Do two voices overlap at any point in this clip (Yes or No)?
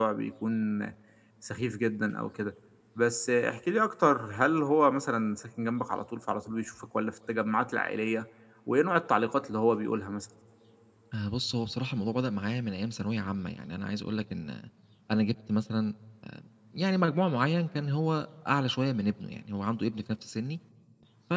No